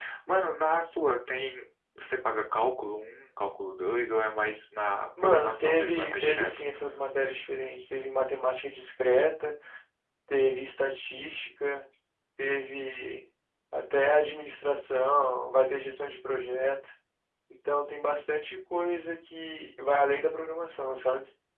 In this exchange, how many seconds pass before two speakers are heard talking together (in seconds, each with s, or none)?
5.2 s